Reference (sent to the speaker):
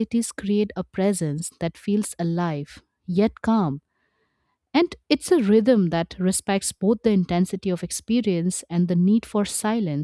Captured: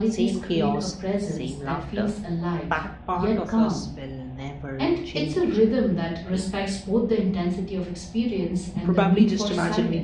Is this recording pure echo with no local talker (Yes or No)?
No